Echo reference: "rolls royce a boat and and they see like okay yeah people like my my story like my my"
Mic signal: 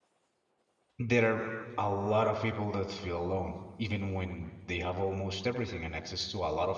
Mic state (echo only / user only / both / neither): user only